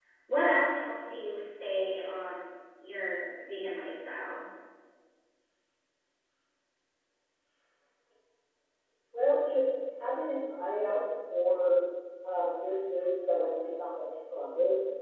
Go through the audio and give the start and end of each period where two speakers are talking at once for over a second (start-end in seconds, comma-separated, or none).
none